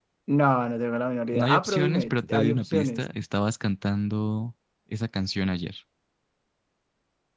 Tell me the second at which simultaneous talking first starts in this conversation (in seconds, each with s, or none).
1.3 s